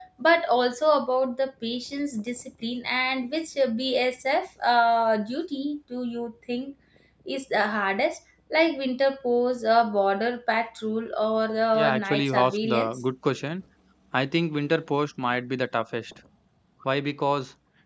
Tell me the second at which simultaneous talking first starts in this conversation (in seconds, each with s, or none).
11.7 s